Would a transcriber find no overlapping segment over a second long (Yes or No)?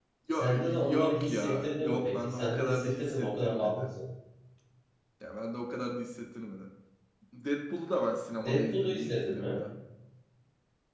No